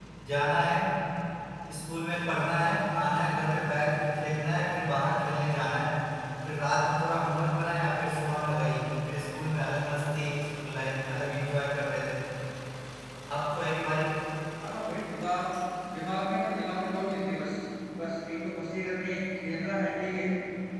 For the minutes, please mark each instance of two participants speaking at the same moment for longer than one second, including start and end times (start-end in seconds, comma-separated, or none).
none